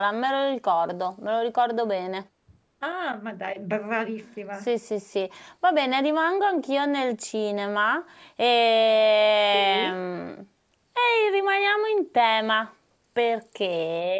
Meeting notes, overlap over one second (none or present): none